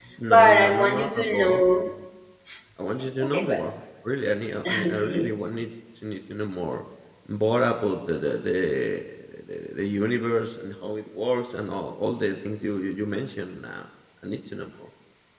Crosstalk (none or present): present